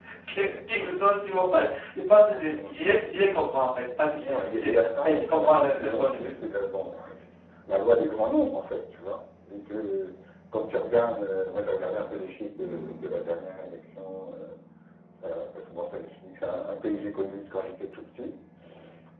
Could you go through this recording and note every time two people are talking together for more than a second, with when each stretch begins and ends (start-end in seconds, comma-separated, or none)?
4.2-6.3